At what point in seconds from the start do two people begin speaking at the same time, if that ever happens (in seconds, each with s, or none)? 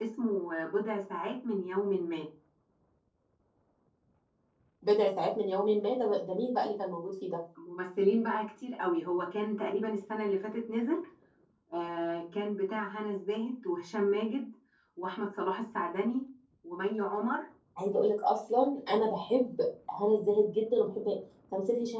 none